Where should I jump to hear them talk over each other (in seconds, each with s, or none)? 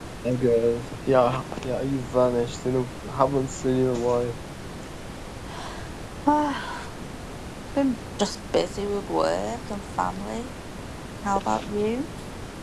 none